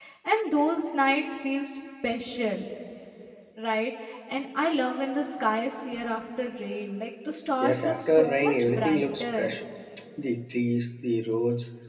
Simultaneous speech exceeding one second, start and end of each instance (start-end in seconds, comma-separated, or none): 7.6-9.5